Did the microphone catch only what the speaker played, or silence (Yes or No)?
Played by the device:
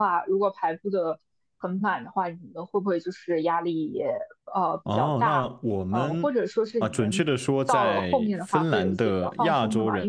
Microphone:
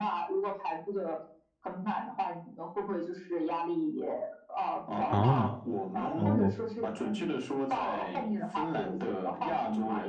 No